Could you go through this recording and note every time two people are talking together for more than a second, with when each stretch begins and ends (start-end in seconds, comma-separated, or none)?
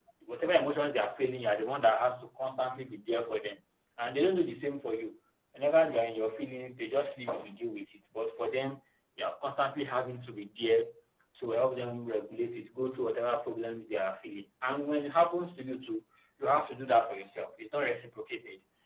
none